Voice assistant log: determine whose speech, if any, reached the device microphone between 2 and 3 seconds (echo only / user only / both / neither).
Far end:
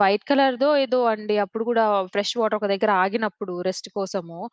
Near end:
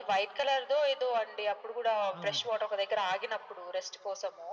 both